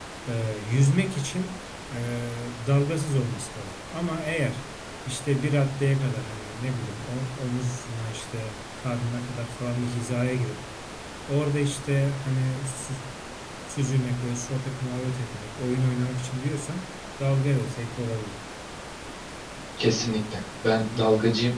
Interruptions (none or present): none